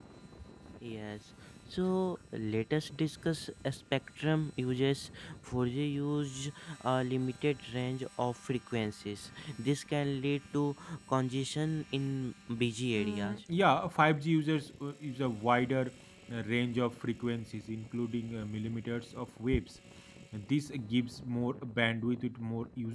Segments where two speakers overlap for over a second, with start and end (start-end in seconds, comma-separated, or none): none